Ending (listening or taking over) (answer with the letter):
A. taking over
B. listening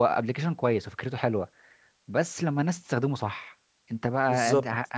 B